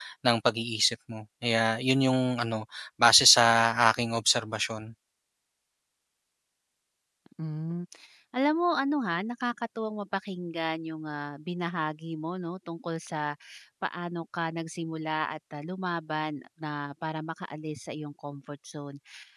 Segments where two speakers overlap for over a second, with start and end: none

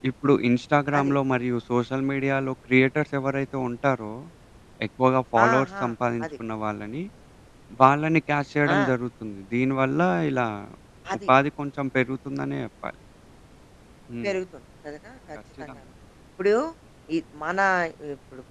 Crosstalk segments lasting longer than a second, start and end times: none

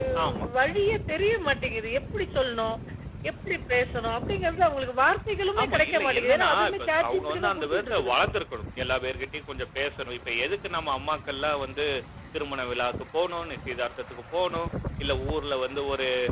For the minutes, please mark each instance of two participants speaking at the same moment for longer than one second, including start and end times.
5.6-8.3

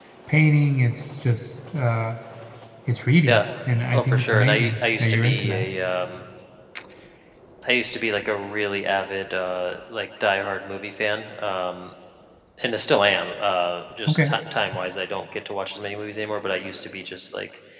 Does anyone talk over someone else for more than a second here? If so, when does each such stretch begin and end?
3.9-5.6

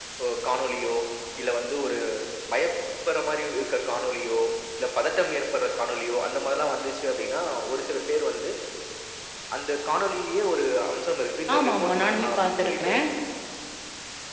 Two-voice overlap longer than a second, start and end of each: 11.6-12.9

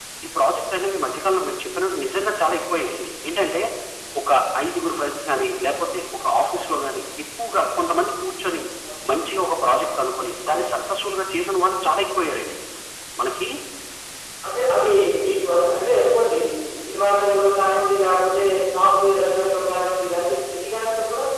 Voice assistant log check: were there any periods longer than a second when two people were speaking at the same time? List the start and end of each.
none

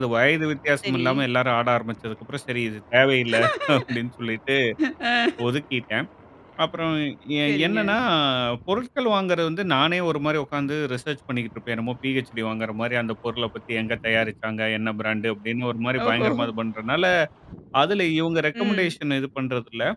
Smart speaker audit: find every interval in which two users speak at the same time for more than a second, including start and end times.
none

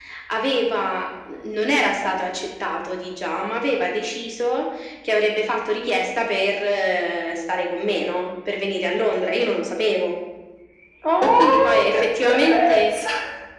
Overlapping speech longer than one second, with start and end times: 11.2-12.8

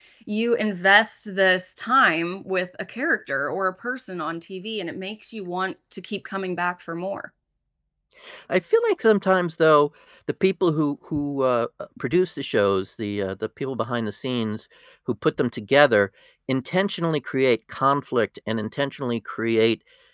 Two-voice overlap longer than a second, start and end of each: none

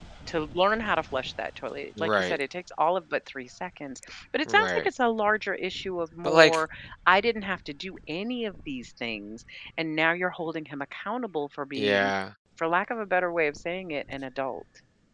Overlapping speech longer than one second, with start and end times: none

